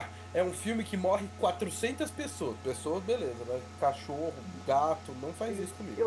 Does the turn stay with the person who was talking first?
No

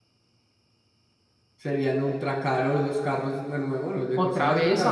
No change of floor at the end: No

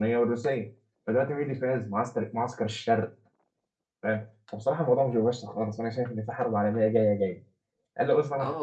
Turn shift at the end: Yes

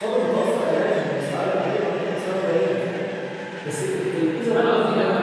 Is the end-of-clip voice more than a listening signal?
Yes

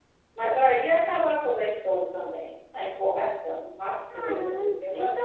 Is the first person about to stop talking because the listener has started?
Yes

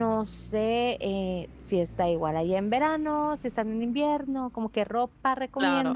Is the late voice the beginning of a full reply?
Yes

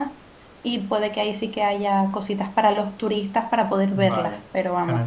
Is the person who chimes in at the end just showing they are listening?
No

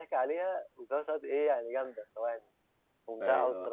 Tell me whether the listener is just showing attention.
No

